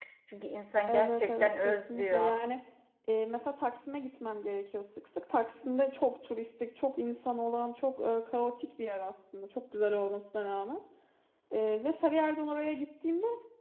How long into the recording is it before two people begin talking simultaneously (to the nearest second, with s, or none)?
1 s